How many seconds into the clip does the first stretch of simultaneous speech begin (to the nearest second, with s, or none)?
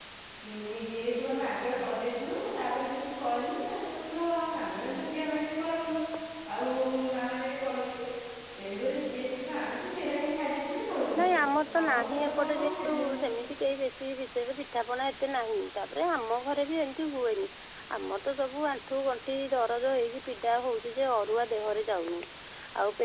12 s